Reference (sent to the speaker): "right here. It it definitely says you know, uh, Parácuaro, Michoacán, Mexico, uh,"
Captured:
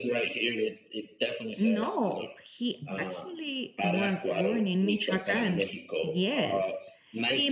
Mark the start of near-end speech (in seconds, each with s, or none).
1.6 s